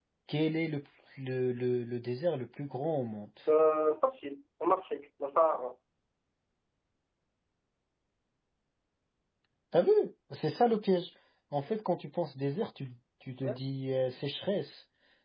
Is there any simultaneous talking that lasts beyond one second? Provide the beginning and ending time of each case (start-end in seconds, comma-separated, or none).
none